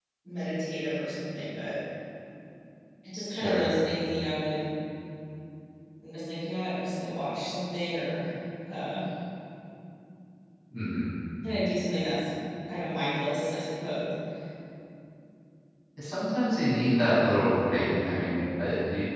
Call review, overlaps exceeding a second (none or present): none